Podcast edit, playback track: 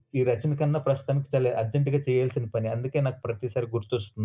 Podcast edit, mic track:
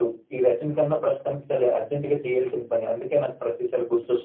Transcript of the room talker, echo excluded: none

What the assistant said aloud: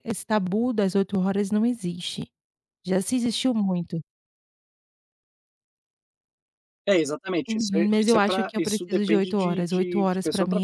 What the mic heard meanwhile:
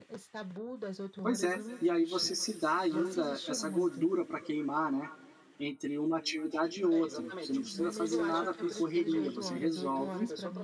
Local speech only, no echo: Pois é. E aí você se dá ainda essa gordura para queimar, né? Entre uma atividade e outra. Você não precisa fazer nada com correria. Você resolve.

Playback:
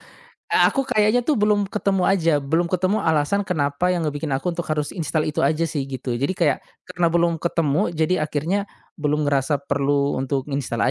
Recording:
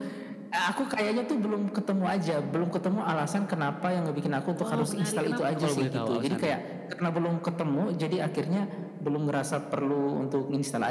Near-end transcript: Oh menarik, kenapa tuh kalau boleh tahu alasannya?

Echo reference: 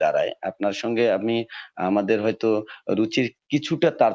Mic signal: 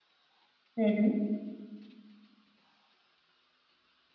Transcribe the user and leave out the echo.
হুম, হুম।

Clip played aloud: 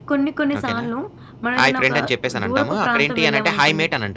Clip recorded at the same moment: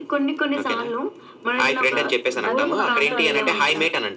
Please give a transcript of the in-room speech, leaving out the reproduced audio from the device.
అదే భాష, అదే మాట.

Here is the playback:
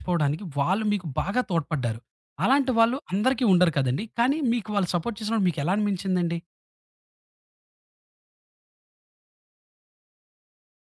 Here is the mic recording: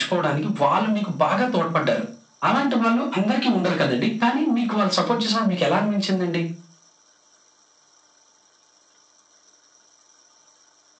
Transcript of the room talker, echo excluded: none

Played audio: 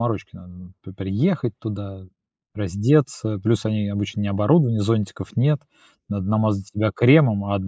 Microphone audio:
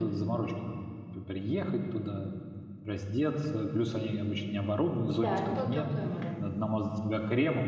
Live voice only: Да, это было теплое море.

